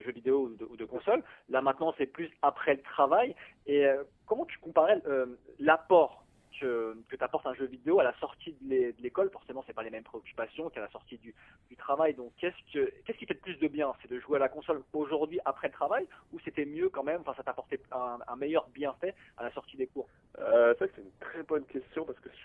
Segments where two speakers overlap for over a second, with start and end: none

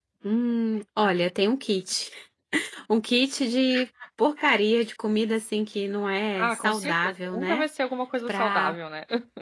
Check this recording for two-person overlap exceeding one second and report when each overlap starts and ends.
6.4-7.7

